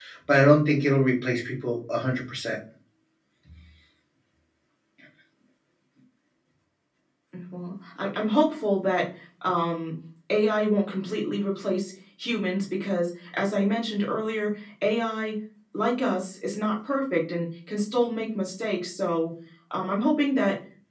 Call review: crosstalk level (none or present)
none